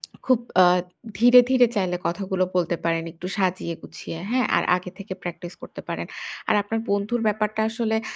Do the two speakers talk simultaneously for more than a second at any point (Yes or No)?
No